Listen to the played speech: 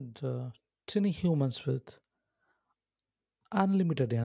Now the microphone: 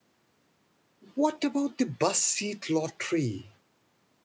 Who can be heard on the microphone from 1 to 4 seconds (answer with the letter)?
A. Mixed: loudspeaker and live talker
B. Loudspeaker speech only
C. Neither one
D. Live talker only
D